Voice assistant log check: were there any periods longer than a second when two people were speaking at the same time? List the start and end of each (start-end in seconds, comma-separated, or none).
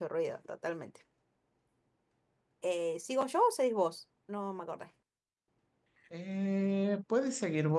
none